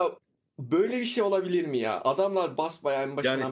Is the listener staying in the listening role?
No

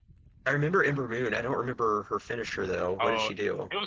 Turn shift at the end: Yes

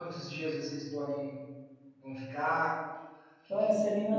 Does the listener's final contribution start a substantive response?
Yes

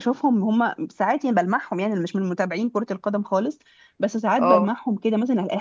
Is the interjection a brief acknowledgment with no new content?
Yes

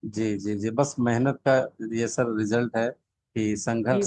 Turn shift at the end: No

